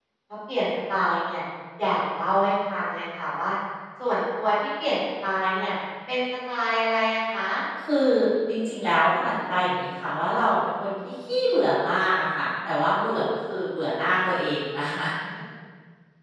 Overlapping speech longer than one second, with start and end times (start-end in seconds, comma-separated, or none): none